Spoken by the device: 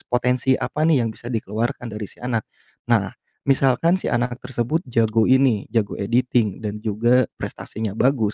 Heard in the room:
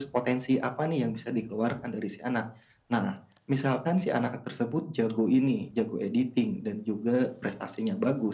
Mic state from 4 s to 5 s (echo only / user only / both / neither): echo only